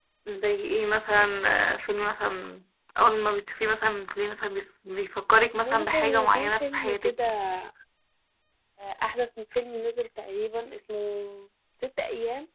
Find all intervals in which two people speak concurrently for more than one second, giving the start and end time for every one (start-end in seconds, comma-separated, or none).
5.6-7.1